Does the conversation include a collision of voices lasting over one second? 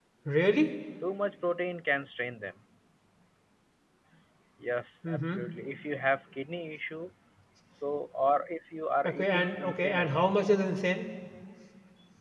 Yes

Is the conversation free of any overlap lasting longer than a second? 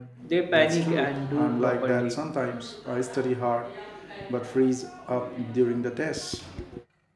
No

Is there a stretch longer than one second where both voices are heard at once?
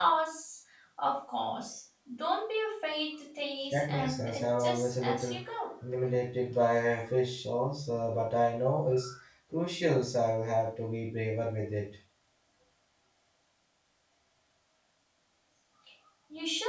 Yes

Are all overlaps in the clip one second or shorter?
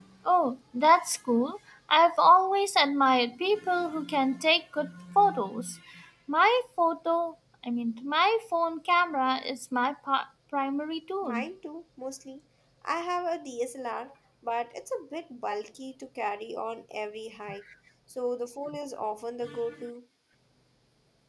Yes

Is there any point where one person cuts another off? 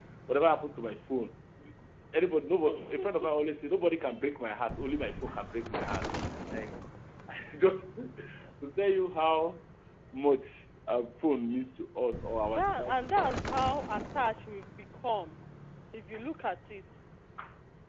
Yes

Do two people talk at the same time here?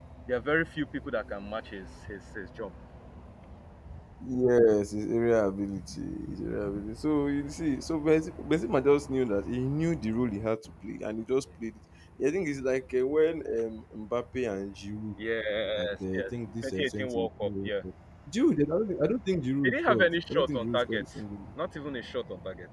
Yes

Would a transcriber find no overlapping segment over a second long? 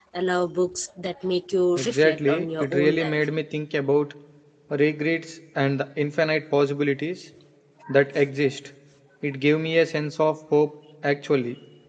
No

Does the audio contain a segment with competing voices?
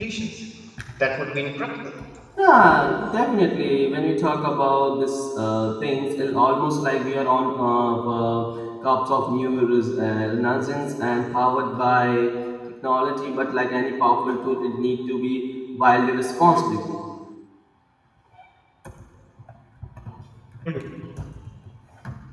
No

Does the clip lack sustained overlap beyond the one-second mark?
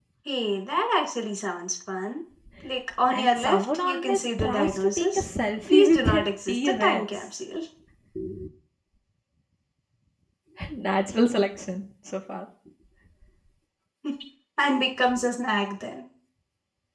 No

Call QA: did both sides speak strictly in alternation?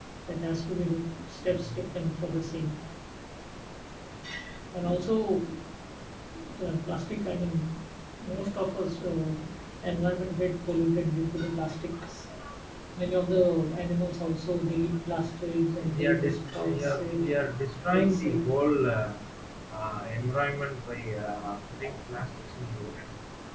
No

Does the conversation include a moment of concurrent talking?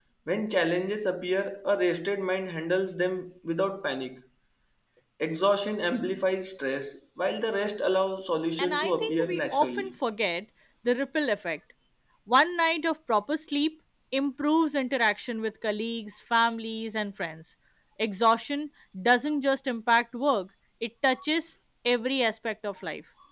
Yes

